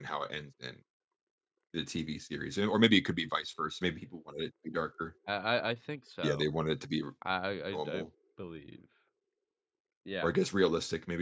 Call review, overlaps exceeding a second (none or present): none